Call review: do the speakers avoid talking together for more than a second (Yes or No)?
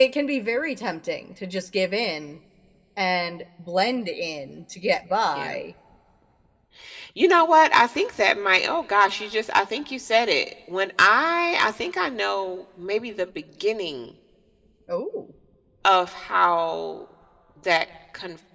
Yes